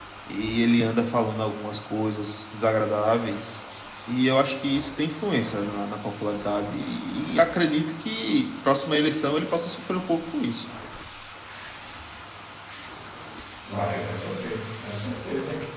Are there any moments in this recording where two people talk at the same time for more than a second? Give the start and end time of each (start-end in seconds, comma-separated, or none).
none